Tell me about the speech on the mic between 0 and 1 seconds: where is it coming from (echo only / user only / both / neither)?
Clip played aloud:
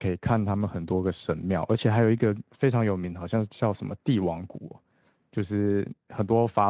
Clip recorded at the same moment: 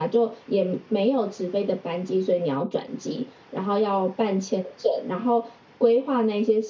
user only